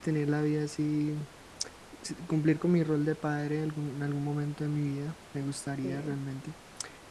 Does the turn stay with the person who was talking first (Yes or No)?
Yes